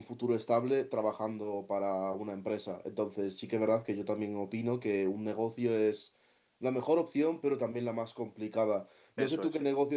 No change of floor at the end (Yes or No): Yes